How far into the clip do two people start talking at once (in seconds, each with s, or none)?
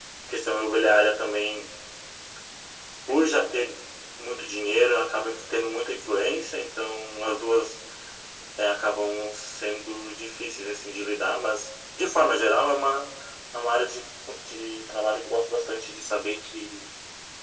none